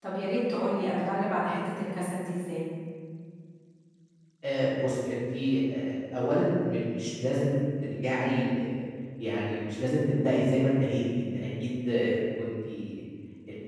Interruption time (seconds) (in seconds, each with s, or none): none